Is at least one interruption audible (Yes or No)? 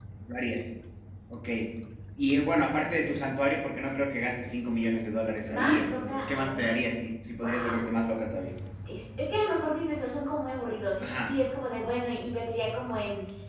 Yes